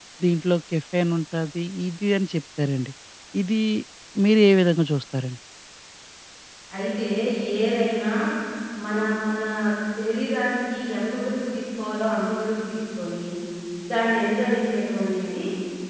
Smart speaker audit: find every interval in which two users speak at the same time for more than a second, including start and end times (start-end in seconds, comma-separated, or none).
none